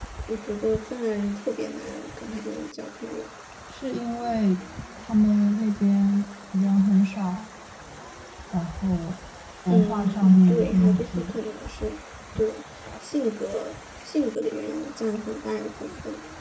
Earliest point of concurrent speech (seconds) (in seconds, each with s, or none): 9.7 s